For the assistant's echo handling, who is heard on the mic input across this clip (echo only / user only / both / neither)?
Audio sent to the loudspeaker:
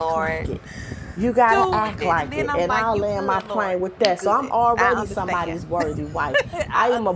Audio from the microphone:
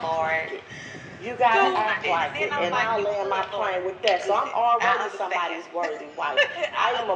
both